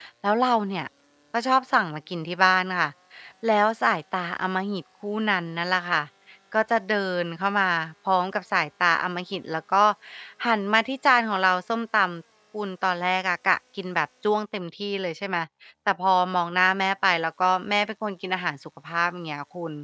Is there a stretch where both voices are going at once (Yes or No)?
No